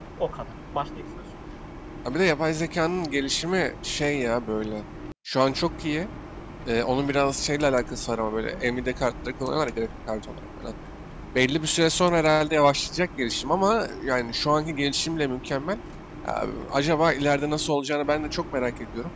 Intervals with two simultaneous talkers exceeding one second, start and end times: none

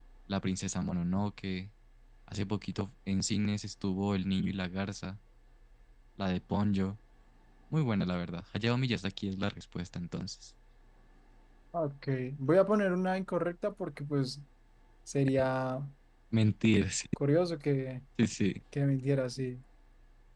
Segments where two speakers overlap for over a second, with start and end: none

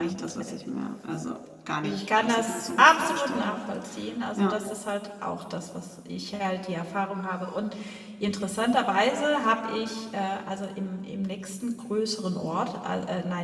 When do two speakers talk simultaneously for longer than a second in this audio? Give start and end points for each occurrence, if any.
1.8-3.5

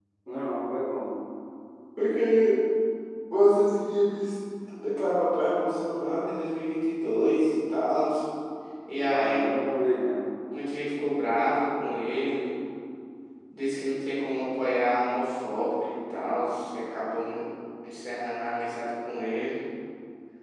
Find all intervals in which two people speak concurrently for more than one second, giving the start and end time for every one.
none

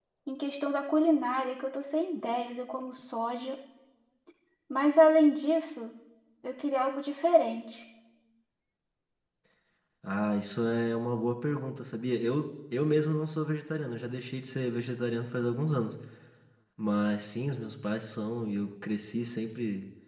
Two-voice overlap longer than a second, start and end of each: none

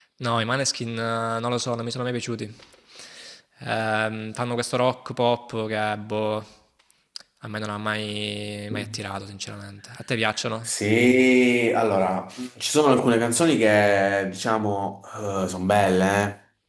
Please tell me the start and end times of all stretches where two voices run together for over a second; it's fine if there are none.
none

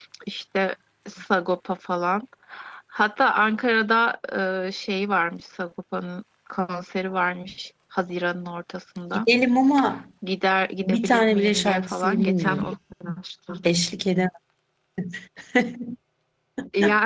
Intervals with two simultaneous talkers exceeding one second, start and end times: 10.8-12.7

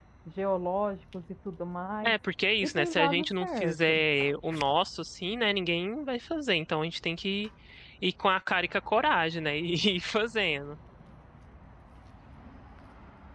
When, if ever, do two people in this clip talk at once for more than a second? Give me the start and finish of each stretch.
2.6-3.9

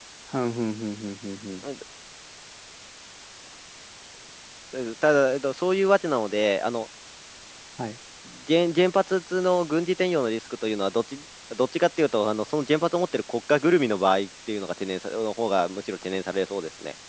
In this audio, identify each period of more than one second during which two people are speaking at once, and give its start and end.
none

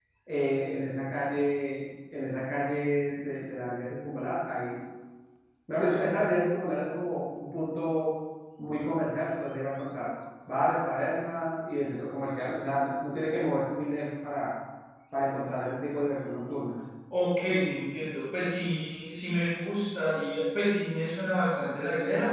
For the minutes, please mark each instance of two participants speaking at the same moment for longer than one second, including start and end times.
none

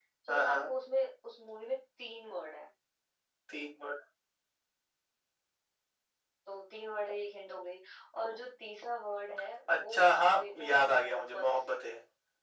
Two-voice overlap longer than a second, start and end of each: 9.7-11.8

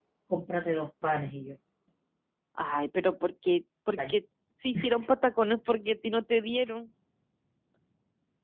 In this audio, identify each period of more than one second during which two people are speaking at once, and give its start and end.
none

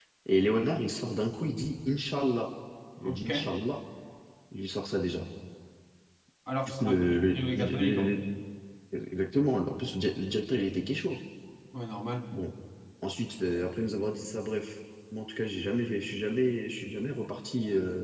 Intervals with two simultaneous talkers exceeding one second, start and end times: 6.7-8.1

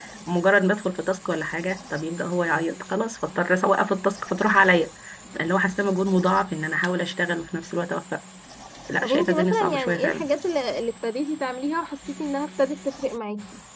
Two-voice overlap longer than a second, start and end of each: 9.0-10.3

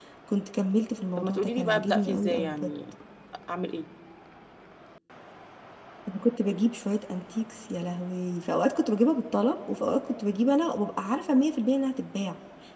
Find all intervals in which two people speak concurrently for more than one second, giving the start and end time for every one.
1.2-2.7

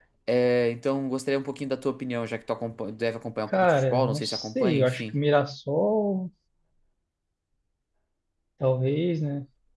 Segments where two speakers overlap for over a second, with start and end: 3.6-5.1

